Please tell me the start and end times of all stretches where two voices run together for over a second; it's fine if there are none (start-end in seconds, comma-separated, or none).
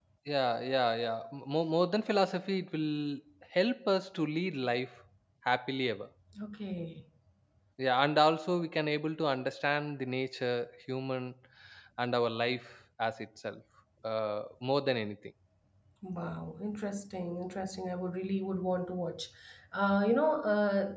none